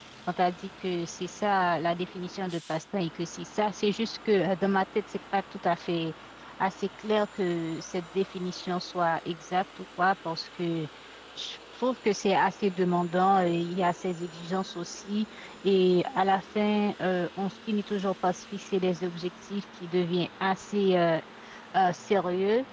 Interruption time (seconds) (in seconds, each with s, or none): none